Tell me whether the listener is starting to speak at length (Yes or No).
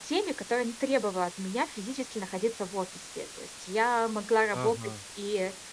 No